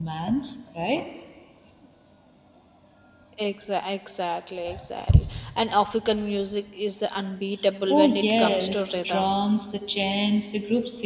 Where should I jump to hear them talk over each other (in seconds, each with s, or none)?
7.9 s